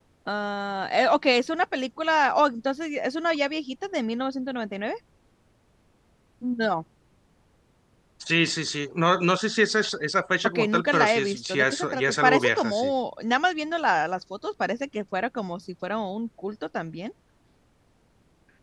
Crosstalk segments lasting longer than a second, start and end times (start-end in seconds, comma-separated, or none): 10.4-12.9